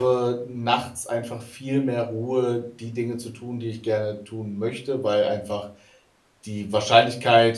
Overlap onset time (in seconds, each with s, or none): none